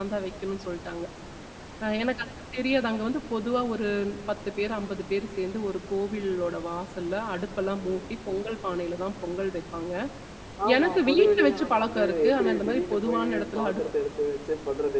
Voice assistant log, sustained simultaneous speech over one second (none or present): present